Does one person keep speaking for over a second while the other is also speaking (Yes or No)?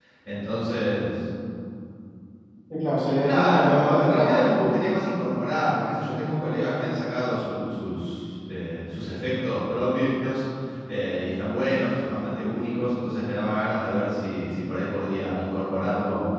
Yes